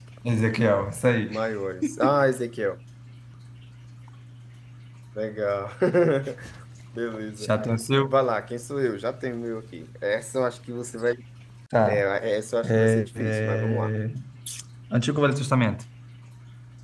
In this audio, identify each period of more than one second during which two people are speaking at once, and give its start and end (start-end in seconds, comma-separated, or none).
12.6-13.9